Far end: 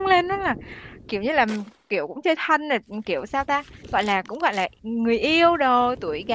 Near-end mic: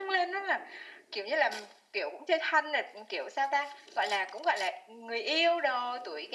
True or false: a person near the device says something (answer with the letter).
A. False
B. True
A